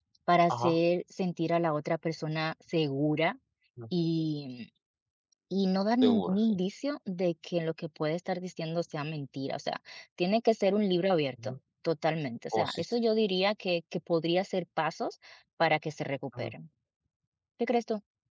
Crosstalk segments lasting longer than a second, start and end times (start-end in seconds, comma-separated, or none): none